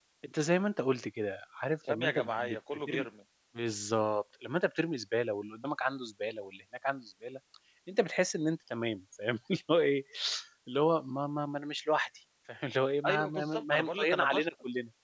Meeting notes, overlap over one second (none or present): present